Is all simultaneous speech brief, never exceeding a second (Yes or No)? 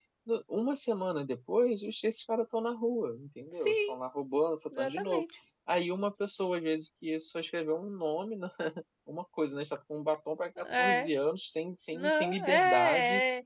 No